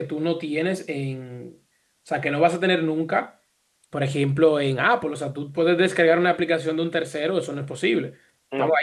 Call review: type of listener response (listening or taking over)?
listening